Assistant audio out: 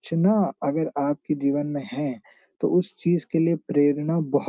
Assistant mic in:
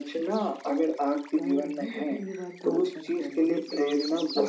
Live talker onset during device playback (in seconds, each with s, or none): 1.4 s